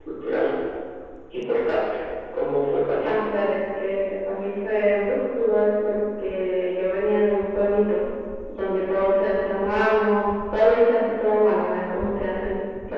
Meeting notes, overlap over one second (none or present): none